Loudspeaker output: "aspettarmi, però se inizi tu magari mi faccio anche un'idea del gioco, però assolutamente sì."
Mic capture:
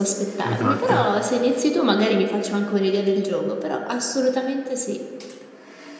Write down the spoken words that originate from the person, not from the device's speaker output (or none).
Esatto.